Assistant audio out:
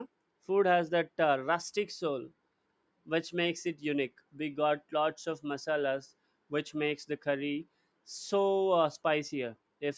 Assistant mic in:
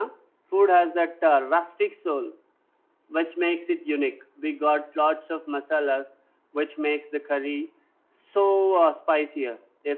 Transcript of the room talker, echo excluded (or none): none